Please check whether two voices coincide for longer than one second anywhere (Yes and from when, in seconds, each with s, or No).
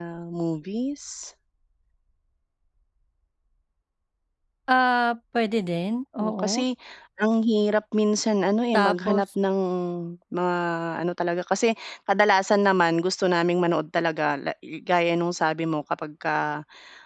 No